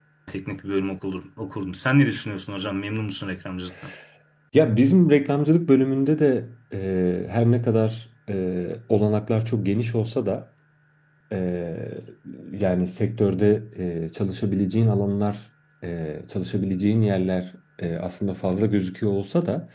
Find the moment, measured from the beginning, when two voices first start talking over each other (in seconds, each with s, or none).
none